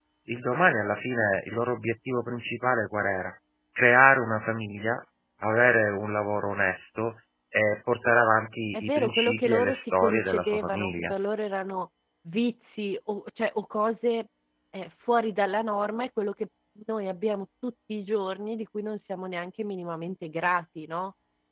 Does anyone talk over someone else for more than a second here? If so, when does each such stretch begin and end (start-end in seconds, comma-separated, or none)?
8.7-11.1